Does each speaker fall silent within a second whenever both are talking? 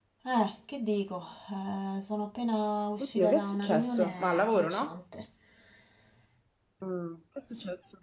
No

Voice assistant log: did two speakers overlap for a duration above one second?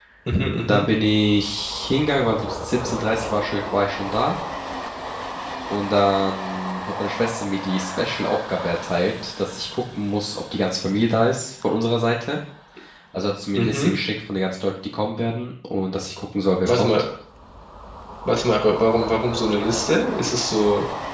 No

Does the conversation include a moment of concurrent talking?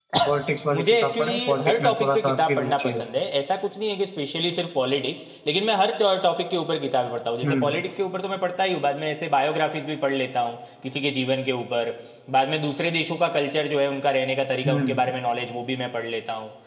Yes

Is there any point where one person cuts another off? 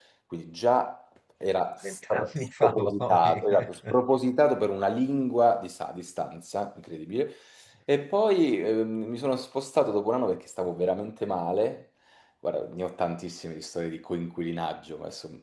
Yes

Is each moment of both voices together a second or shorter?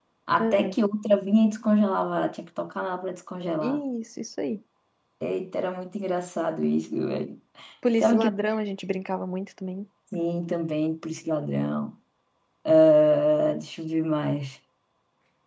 Yes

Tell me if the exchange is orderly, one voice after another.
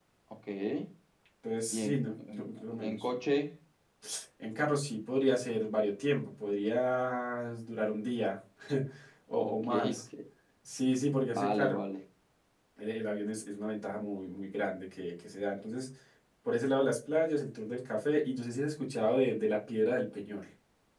No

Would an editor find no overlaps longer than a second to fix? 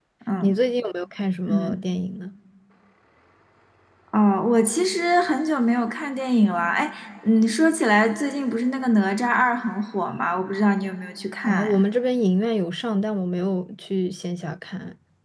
Yes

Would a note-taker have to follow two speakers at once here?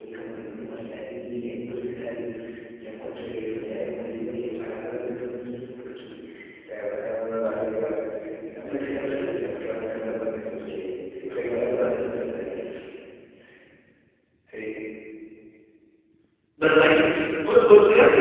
No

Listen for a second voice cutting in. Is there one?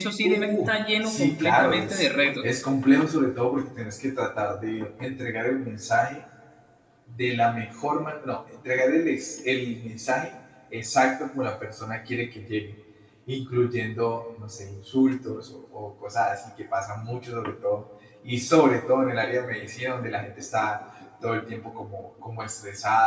Yes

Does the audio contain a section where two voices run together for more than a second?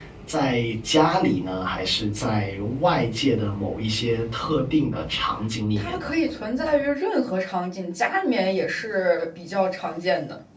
No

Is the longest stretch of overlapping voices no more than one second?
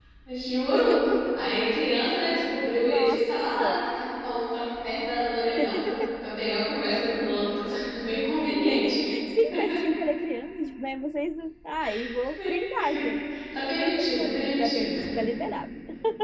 No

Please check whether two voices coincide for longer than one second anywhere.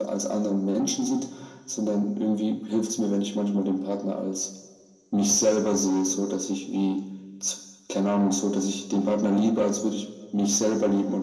No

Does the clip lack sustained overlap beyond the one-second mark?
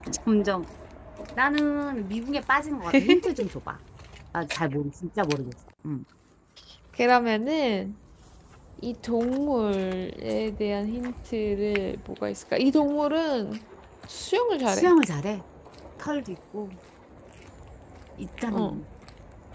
Yes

